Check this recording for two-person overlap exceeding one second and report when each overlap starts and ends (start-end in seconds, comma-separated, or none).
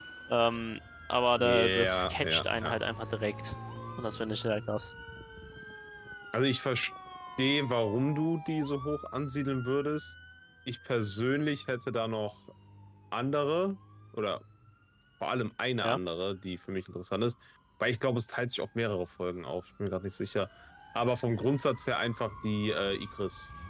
1.4-2.8